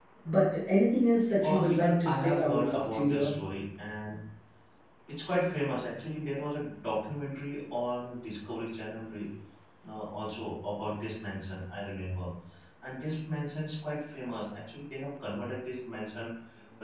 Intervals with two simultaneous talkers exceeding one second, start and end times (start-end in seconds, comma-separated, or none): 1.4-3.3